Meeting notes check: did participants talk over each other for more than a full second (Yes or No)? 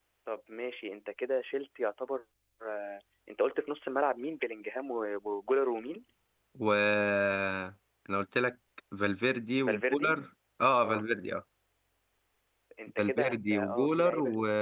Yes